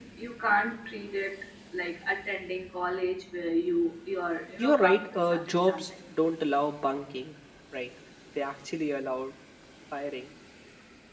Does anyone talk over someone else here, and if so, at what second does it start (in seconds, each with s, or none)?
4.6 s